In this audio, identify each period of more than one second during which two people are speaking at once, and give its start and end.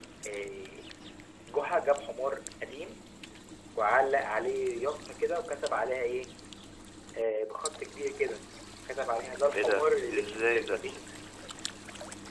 9.5-10.8

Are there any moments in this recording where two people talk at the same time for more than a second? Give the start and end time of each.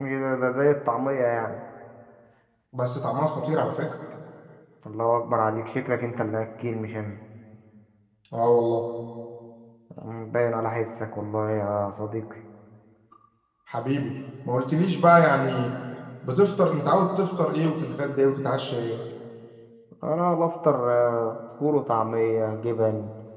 none

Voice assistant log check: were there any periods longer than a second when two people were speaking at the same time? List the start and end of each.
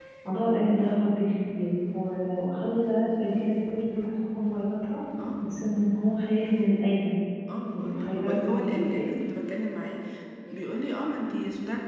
7.8-9.1

